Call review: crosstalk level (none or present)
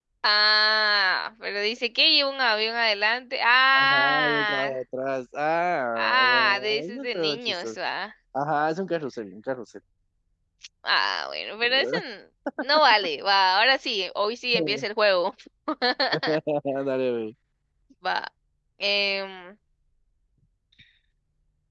present